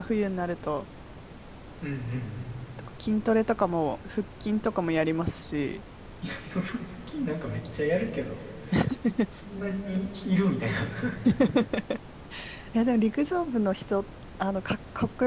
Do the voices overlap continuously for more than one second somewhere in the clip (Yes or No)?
No